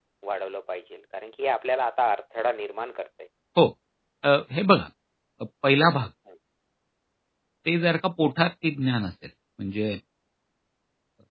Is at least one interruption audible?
No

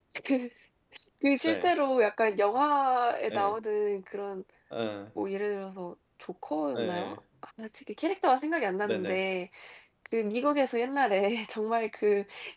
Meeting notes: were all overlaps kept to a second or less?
Yes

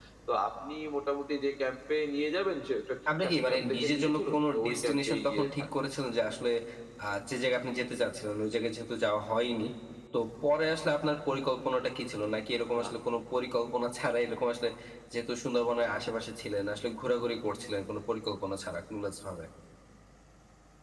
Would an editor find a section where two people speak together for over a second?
Yes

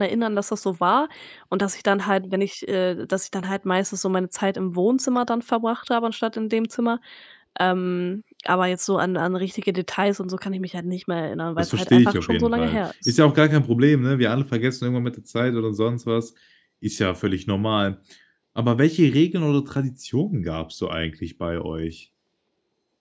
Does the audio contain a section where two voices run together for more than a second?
Yes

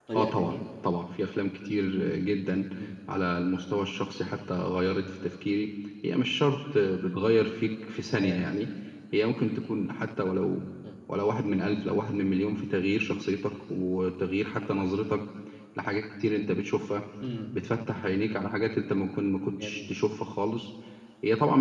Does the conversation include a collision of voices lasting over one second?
No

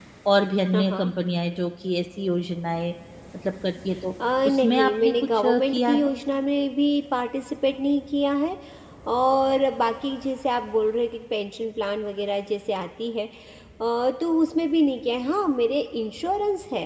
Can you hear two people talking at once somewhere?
Yes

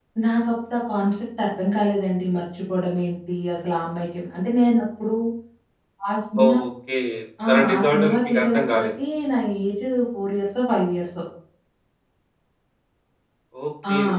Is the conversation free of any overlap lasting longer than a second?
No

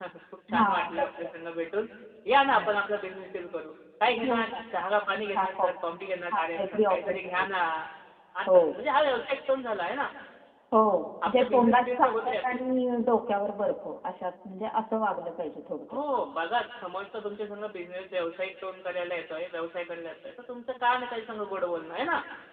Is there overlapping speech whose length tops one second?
Yes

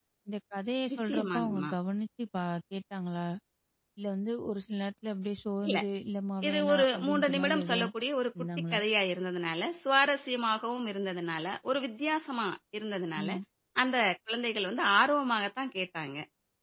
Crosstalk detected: Yes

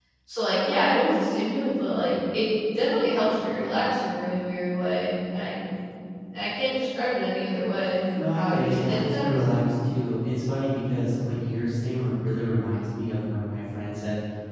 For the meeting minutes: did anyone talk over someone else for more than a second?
Yes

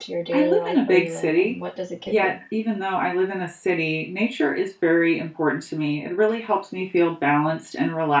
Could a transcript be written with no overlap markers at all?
No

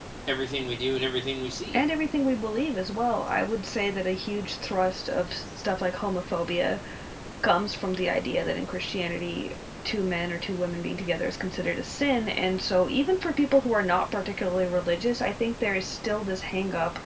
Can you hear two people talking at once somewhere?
No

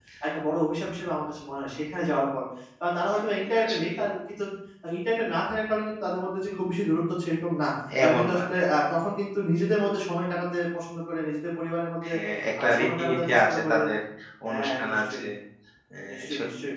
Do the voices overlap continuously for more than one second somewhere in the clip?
Yes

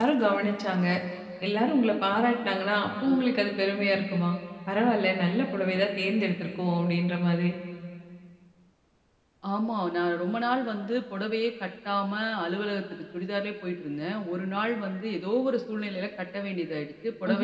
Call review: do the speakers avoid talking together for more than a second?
Yes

